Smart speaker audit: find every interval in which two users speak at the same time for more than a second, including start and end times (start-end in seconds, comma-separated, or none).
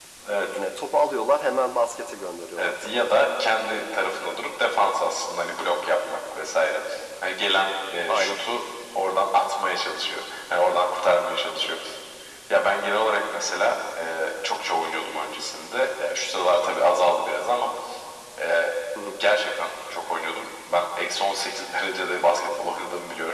none